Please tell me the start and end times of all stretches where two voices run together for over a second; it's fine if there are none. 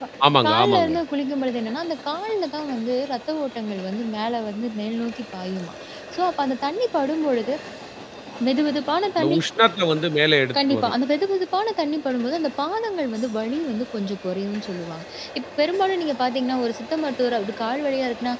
none

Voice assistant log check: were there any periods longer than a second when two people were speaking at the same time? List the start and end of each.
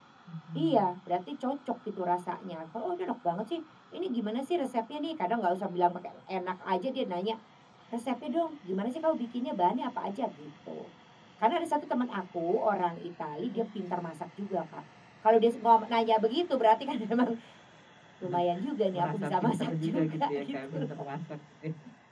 19.0-20.8

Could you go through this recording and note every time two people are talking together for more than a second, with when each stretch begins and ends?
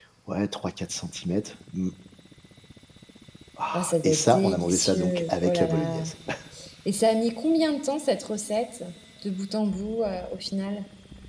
3.7-6.1

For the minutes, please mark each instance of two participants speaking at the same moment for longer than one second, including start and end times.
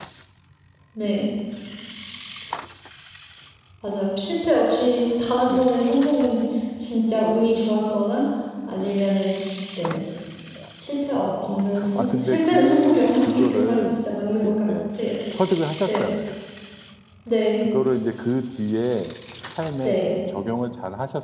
12.0-14.7

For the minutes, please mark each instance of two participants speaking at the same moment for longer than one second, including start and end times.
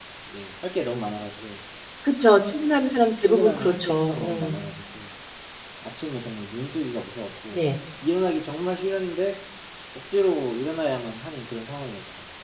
3.2-4.6

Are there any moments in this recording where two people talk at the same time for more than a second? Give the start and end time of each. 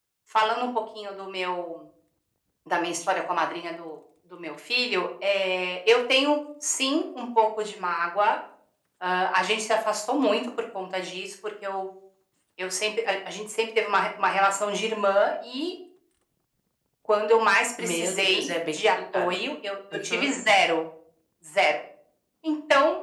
17.8-19.4

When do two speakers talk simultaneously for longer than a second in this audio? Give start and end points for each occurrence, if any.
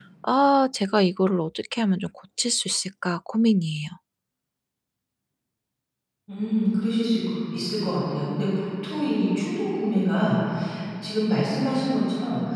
none

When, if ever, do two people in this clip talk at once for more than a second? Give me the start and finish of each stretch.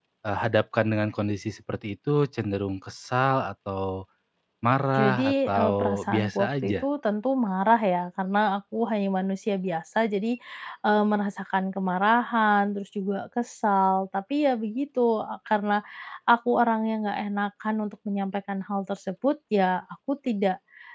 4.9-6.8

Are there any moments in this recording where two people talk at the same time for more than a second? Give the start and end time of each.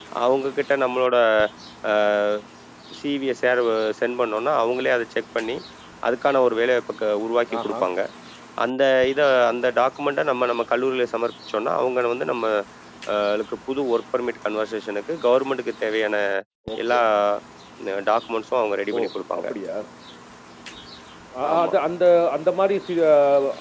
none

